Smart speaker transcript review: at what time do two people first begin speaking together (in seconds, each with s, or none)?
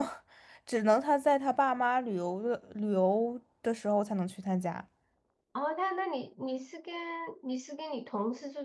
none